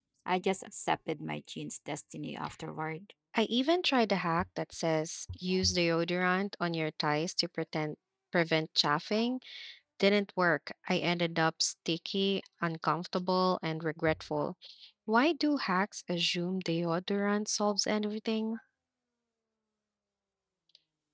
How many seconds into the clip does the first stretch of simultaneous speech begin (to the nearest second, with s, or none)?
none